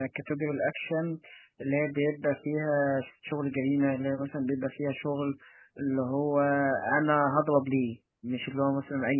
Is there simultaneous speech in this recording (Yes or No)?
No